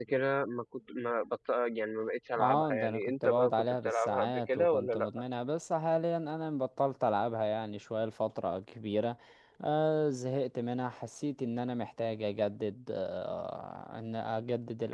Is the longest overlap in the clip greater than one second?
Yes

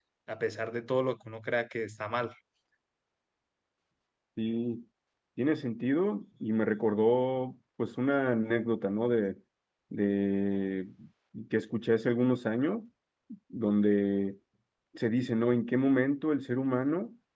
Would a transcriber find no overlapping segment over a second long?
Yes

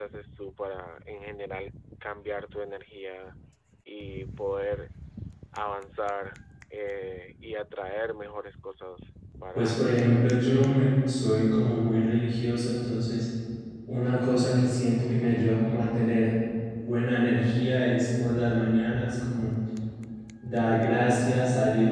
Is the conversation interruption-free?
No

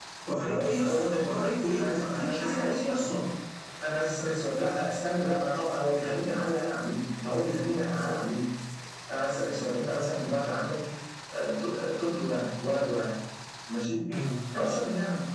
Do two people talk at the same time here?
Yes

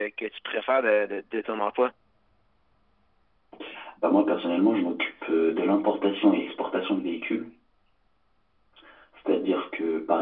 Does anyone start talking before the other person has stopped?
No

